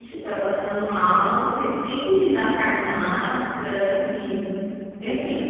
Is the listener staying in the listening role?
No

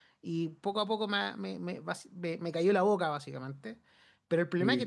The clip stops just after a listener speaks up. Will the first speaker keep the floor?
Yes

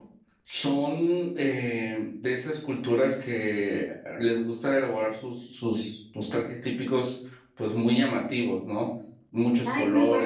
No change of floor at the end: No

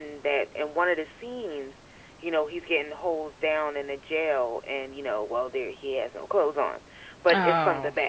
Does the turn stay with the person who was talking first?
Yes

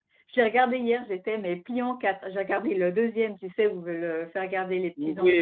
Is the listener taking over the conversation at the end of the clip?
Yes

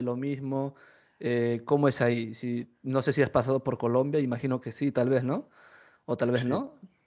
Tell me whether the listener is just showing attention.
Yes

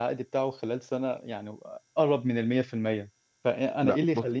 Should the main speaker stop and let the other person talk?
No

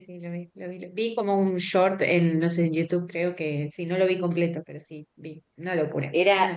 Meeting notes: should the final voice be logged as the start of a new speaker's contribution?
Yes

